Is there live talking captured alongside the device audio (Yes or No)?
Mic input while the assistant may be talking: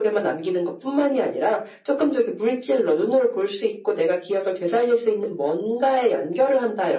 No